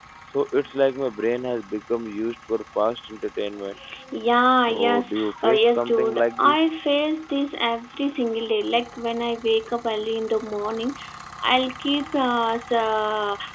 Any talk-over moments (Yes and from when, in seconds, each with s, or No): Yes, from 4.6 s